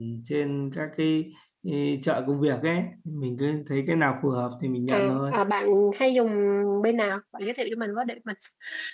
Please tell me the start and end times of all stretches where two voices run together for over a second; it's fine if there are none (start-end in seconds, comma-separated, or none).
none